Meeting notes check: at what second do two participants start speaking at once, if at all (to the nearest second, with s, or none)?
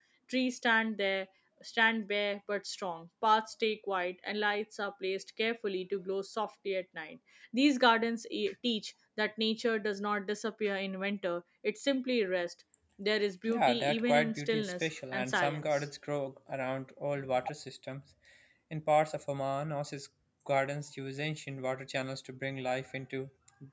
13 s